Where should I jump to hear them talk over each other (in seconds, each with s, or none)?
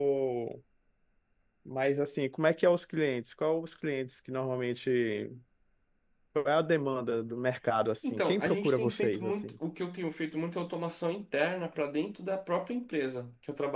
8.0 s